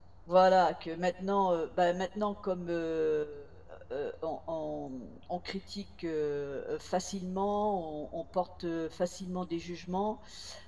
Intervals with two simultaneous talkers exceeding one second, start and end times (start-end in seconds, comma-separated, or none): none